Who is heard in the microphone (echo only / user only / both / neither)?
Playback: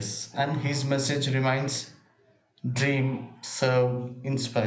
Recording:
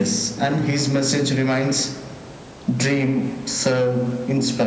echo only